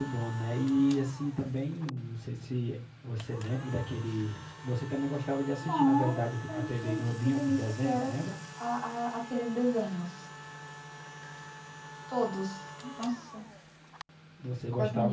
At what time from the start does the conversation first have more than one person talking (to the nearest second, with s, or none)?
6 s